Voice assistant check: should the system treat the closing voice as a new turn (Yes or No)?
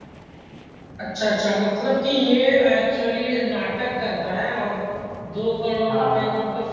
No